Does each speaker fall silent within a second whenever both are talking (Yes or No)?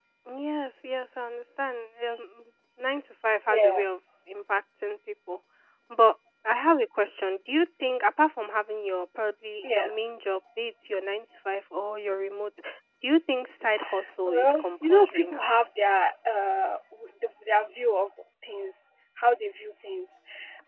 No